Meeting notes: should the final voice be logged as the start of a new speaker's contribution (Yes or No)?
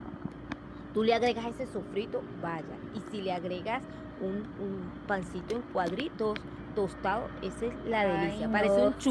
Yes